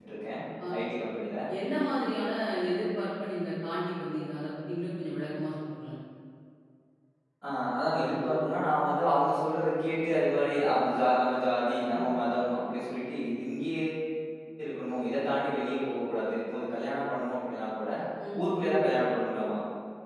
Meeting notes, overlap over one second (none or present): none